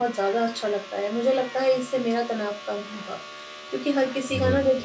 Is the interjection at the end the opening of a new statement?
No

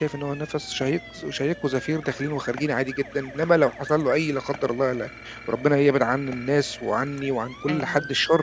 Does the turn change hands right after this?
No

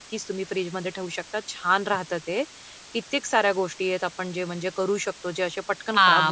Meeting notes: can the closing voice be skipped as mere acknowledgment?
No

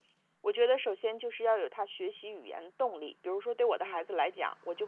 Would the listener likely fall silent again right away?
Yes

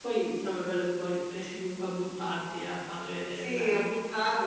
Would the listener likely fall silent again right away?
No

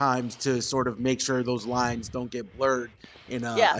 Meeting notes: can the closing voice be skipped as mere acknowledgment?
Yes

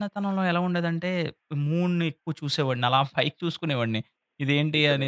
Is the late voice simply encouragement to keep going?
Yes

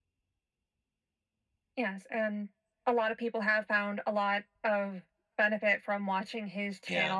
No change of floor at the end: Yes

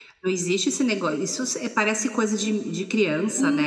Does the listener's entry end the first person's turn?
Yes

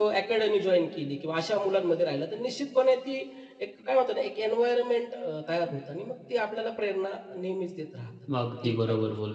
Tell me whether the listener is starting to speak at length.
Yes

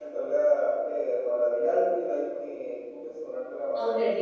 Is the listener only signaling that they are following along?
No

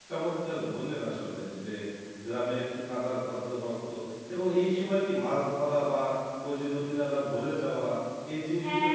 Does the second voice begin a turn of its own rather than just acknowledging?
Yes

